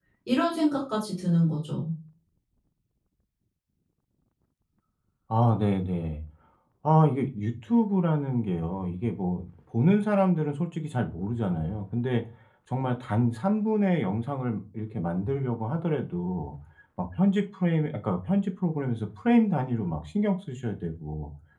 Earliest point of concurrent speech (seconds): none

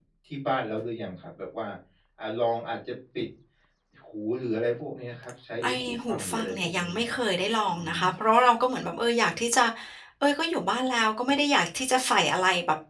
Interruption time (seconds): 6 s

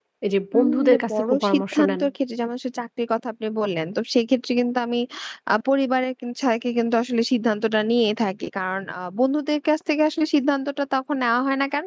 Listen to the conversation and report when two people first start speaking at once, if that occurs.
1 s

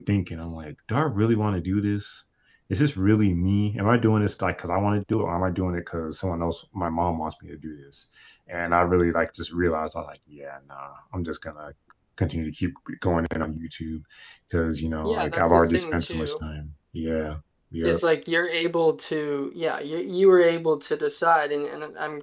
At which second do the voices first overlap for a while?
15 s

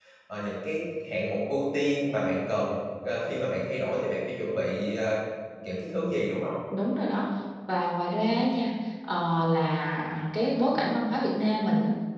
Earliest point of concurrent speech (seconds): none

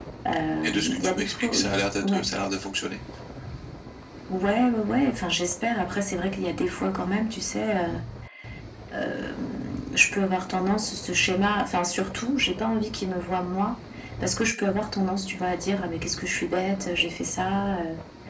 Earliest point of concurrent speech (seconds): 1 s

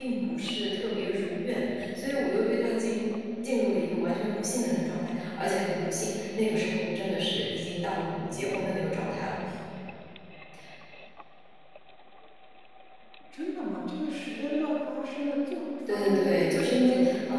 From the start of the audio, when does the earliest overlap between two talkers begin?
16 s

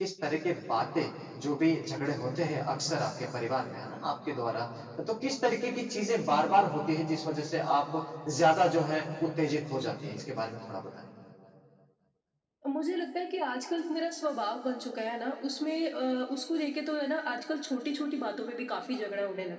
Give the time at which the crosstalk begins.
none

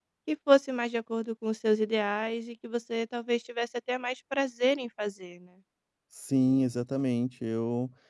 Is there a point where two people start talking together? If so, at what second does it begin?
none

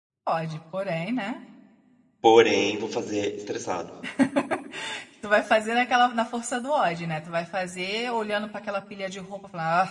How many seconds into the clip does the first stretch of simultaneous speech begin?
none

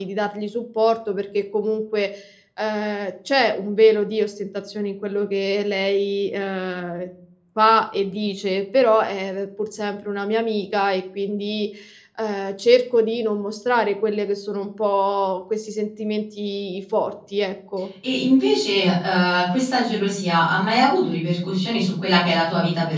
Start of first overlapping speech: none

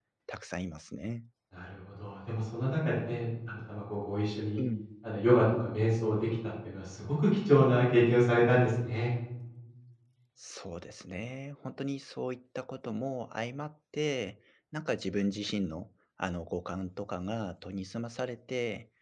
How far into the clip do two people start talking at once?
none

